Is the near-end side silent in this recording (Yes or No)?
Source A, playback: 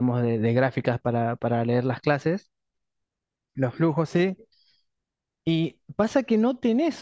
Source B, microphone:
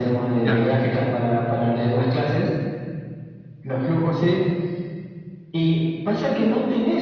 No